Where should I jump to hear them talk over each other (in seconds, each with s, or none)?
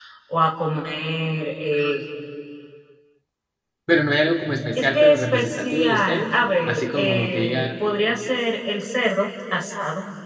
4.8 s